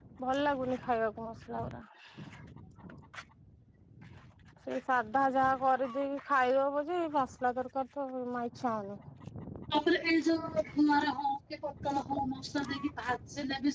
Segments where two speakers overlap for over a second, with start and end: none

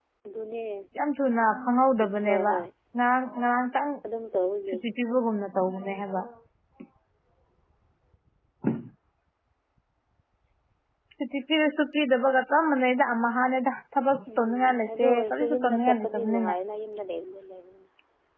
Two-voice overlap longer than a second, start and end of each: 14.4-16.5

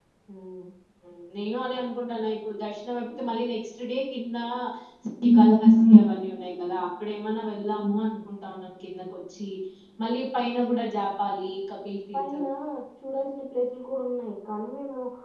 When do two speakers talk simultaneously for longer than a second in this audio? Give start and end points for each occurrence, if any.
none

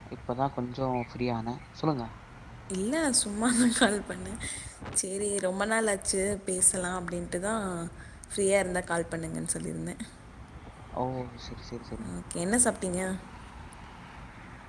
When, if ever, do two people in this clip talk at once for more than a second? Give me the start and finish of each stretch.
none

